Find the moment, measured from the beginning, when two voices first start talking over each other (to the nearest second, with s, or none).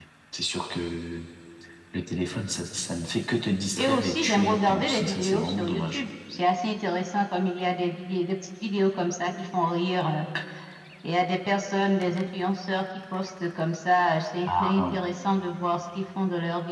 4 s